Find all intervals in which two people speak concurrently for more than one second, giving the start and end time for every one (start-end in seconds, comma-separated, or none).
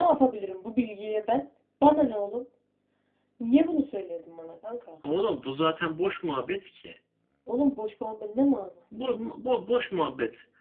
none